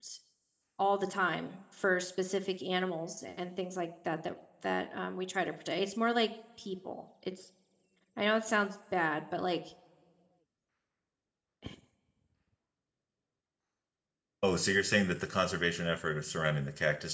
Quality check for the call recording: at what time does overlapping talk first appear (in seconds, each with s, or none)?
none